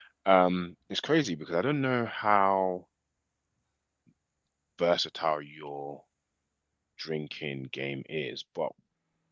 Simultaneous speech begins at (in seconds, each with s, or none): none